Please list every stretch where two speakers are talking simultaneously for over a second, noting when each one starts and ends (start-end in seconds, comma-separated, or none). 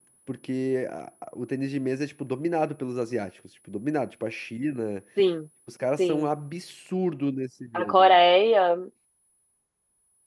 none